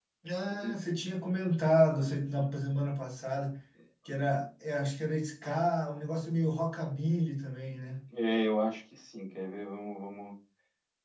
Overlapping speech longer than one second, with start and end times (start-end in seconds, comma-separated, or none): none